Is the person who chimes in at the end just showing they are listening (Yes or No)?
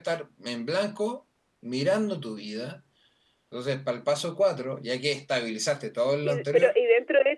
No